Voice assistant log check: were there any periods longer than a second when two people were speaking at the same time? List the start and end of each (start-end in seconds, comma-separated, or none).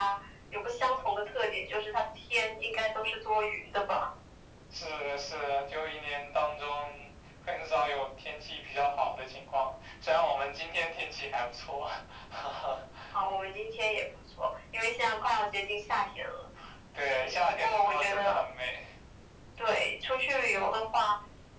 17.1-18.4